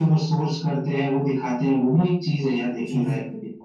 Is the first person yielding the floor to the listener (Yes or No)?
Yes